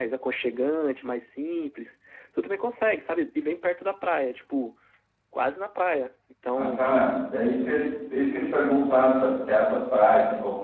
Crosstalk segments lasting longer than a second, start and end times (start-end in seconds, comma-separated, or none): none